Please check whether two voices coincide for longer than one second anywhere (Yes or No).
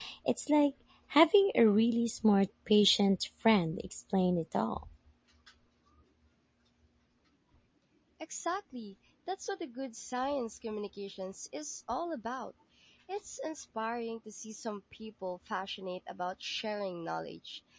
No